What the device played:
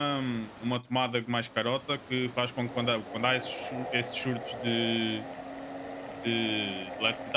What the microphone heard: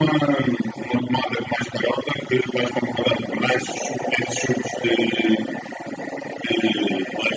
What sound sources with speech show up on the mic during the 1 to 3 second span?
echo only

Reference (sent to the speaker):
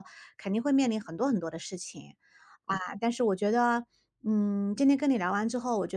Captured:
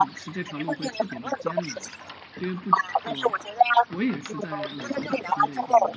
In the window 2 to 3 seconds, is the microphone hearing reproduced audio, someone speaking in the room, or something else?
both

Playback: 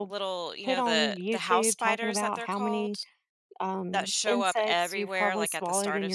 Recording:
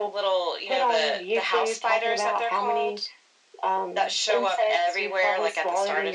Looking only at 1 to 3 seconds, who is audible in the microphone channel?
echo only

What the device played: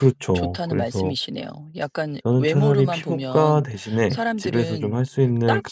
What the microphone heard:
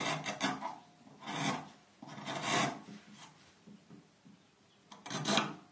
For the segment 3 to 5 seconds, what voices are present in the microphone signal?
neither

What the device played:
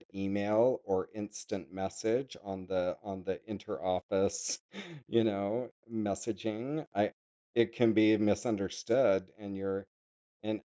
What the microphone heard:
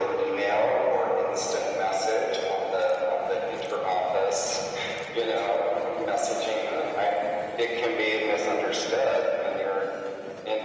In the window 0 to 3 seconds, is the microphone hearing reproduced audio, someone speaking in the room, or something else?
echo only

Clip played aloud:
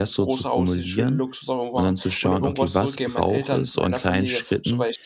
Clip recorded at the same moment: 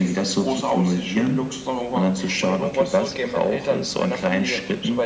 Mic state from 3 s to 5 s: echo only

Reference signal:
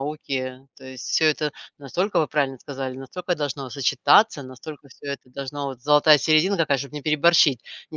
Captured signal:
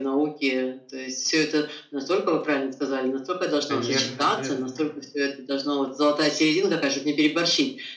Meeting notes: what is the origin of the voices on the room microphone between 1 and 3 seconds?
echo only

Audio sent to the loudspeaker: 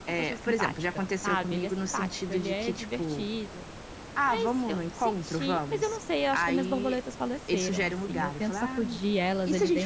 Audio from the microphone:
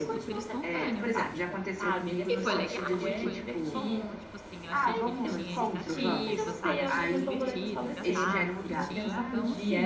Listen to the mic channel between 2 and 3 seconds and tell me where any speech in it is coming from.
both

